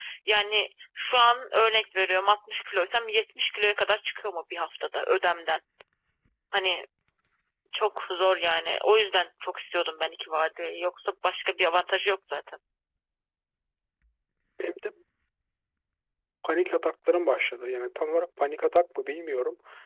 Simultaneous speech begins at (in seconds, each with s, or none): none